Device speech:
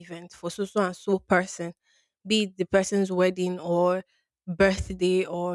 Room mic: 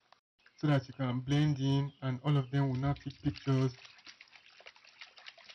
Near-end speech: present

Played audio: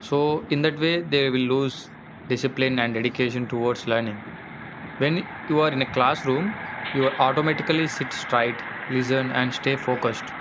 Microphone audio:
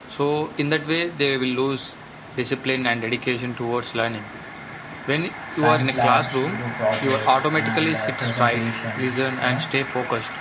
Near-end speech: present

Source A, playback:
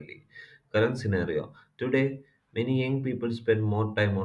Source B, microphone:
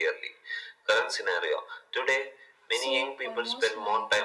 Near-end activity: present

